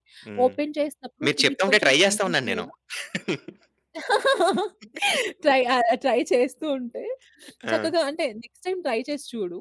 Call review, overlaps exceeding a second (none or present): present